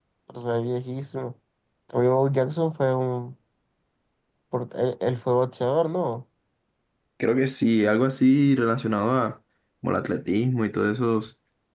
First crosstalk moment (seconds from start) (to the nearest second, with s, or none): none